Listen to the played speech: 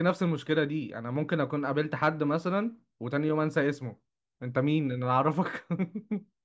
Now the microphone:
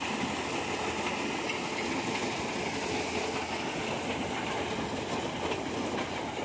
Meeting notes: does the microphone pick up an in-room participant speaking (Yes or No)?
No